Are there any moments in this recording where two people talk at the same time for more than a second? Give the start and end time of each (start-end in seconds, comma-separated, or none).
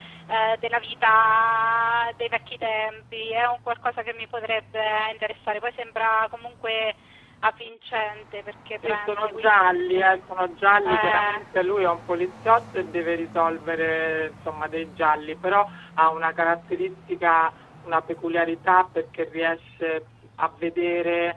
8.8-10.2